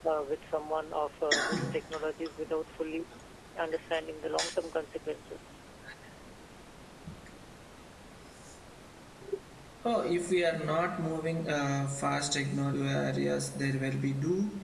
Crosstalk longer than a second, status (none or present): none